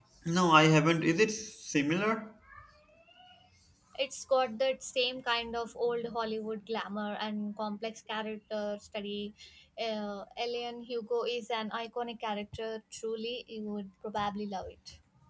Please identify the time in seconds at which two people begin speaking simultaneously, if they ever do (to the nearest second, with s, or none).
none